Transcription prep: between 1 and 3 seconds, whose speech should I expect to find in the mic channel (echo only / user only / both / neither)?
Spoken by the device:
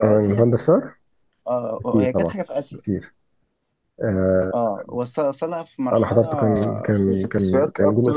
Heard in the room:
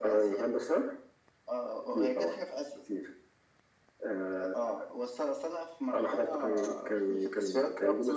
echo only